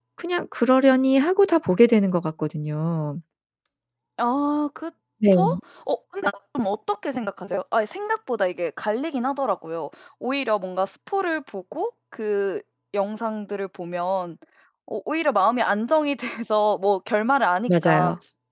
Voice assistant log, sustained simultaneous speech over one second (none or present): none